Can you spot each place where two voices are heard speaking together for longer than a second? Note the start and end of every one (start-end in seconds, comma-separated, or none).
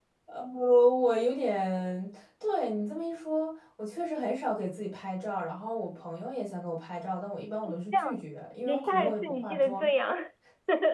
8.6-9.9